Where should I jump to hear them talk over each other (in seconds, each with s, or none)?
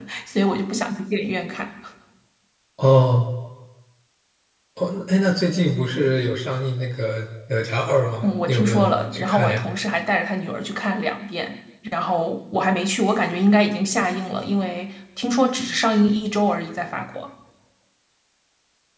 8.2 s